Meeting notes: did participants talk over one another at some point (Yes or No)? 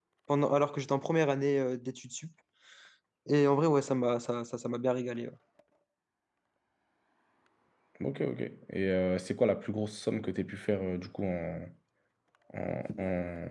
No